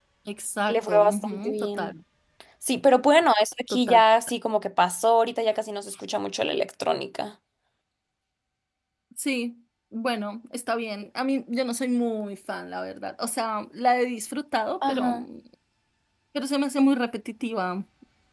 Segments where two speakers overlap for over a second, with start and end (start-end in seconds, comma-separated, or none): 0.7-1.9